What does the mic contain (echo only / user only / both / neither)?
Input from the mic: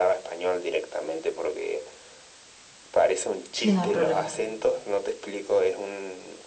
both